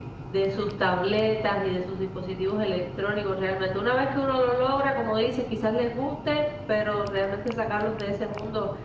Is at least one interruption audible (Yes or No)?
No